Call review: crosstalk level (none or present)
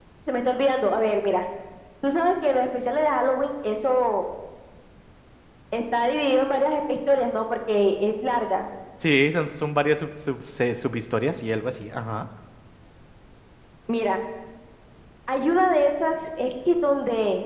none